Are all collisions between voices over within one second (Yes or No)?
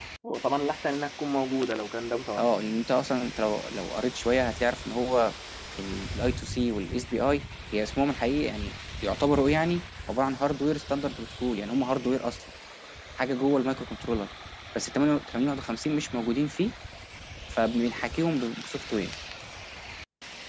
Yes